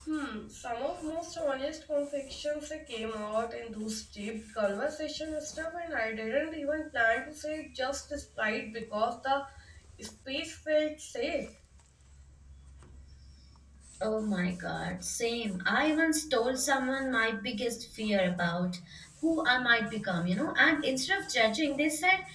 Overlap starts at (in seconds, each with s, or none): none